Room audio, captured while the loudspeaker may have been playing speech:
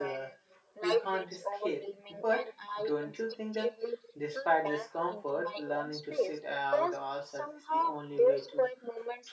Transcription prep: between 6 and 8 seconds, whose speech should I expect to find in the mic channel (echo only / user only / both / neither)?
both